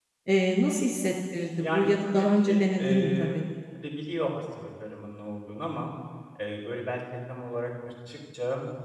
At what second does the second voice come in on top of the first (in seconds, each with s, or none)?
1.6 s